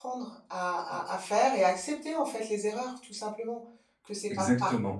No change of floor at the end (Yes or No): Yes